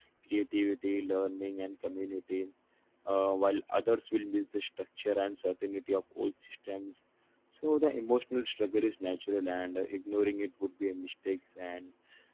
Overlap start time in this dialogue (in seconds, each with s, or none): none